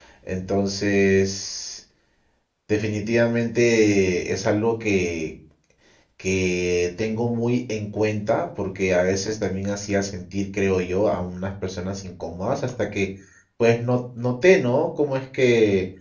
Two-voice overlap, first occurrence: none

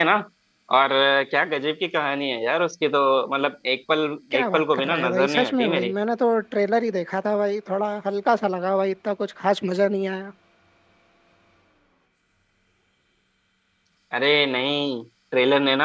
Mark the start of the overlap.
4.4 s

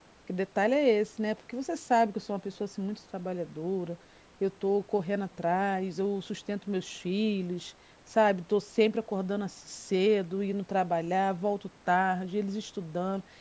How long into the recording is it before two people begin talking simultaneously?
none

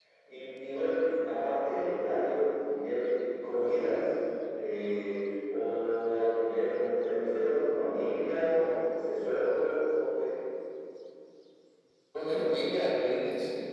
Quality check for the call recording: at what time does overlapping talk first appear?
none

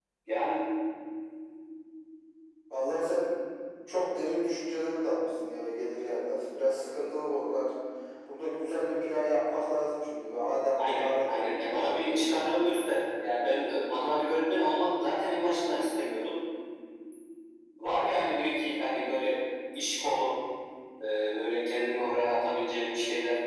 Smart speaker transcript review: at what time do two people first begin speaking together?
10.8 s

